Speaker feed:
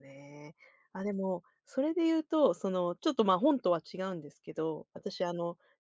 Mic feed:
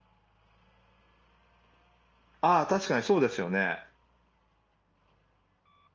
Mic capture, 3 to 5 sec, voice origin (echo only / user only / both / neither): user only